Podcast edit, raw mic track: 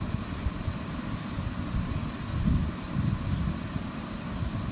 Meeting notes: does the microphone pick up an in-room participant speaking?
No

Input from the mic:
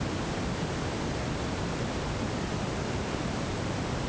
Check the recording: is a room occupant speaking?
No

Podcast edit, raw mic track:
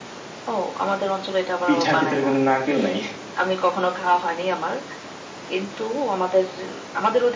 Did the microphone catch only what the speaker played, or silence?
No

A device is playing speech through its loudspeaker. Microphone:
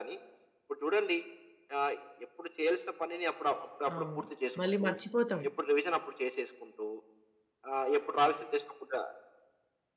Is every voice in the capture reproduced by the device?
No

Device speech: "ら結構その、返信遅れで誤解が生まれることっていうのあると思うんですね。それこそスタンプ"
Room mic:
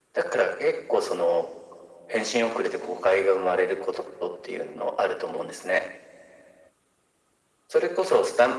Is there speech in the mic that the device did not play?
No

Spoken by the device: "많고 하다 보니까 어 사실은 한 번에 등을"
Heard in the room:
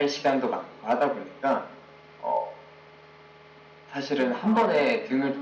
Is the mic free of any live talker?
No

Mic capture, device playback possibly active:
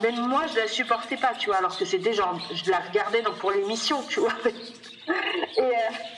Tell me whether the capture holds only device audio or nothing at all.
Yes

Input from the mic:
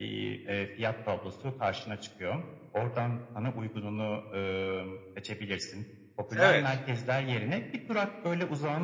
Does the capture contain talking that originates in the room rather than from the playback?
Yes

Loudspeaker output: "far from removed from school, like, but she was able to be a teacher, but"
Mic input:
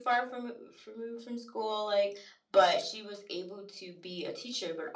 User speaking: No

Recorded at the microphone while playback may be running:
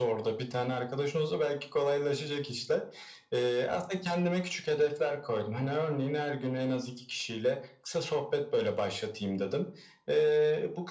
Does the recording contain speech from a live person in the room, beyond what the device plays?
No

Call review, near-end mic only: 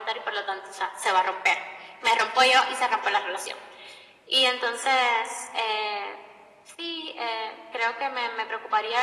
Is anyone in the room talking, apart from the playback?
No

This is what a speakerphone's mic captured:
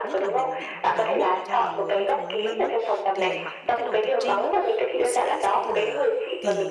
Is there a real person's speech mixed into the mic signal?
Yes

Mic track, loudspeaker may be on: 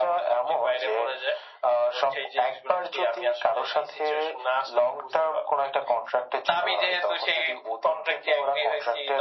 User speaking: No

